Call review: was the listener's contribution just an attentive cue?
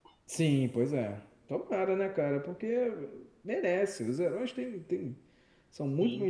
Yes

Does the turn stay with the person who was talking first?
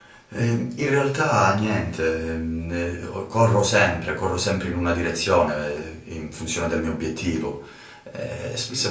Yes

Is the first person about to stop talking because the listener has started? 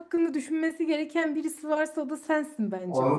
Yes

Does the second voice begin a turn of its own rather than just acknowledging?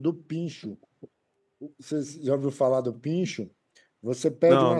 No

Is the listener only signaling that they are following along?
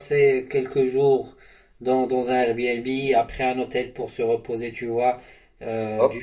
Yes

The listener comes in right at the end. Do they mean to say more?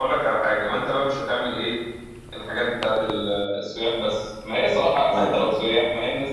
No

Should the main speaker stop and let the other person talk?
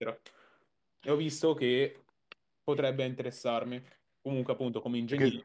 No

